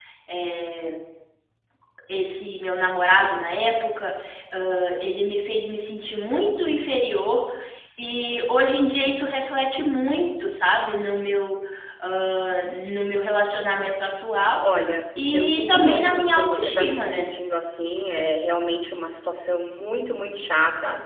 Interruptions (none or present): present